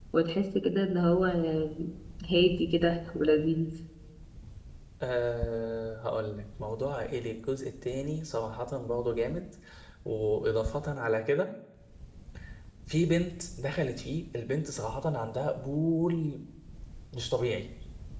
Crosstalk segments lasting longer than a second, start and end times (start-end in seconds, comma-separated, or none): none